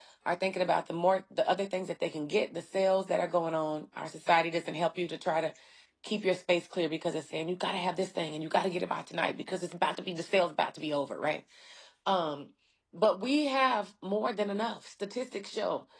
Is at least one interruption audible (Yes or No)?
No